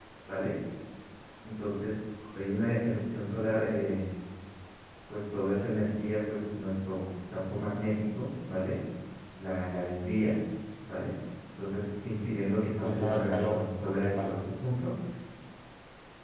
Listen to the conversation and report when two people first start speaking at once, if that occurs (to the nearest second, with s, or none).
13 s